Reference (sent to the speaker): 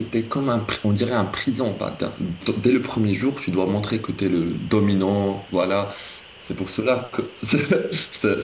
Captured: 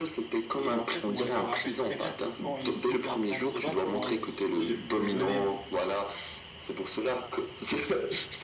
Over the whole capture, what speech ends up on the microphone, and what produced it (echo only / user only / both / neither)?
both